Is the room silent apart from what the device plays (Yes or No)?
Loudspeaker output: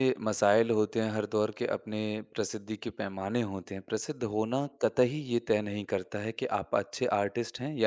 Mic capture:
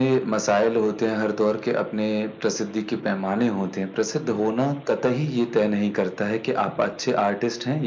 Yes